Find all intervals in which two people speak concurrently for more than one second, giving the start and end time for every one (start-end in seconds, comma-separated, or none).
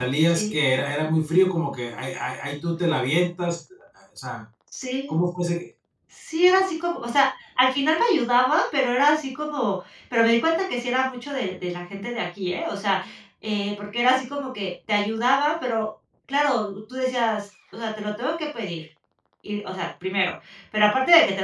none